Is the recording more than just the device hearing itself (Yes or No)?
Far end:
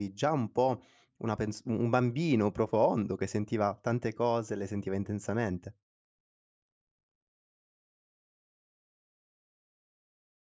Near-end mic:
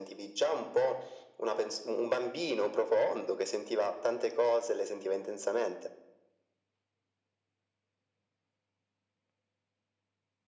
No